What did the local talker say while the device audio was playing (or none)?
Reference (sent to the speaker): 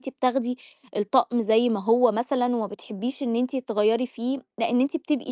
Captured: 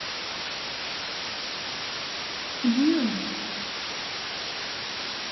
اهم.